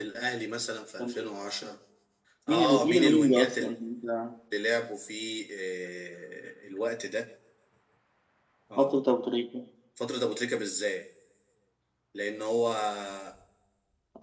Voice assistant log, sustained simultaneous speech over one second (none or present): present